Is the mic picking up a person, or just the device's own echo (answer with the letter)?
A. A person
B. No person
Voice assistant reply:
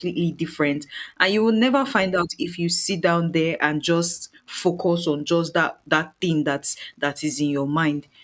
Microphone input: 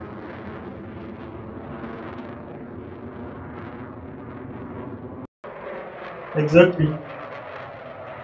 A